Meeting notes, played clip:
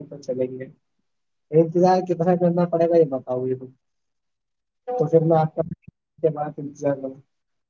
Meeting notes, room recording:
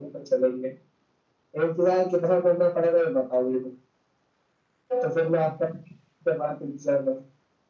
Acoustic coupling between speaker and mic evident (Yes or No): Yes